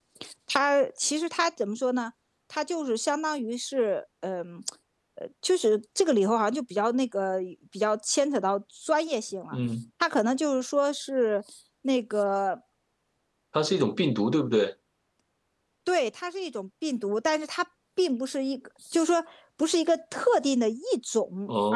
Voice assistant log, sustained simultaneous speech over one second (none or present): none